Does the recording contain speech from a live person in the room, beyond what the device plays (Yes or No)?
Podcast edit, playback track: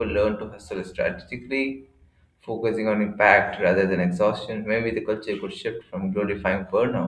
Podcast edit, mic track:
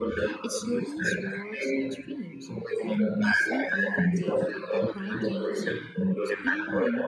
Yes